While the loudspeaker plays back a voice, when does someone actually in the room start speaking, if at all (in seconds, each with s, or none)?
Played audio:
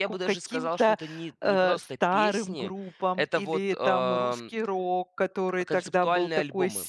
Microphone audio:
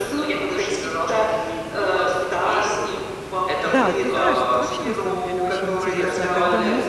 3.6 s